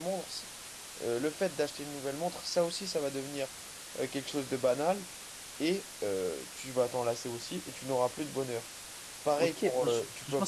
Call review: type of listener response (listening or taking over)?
taking over